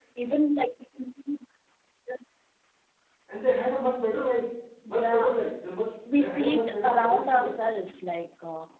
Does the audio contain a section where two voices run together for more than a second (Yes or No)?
Yes